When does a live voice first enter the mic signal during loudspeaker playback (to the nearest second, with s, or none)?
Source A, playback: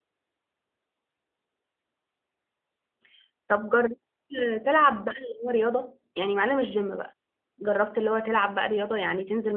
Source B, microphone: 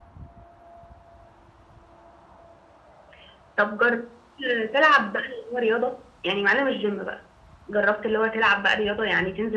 none